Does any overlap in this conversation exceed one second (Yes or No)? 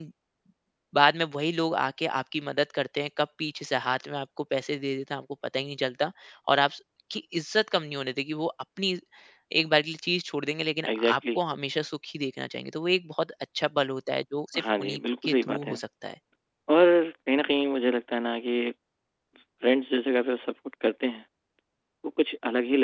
Yes